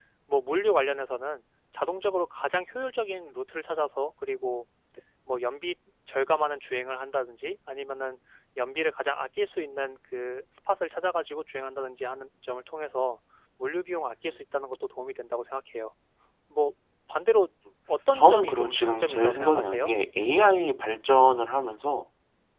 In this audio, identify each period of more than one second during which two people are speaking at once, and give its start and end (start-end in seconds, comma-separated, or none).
18.1-19.9